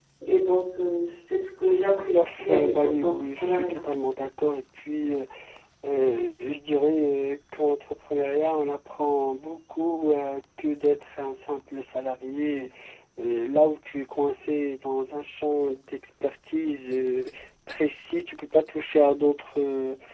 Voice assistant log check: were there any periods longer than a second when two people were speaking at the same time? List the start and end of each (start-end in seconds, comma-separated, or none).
2.0-3.8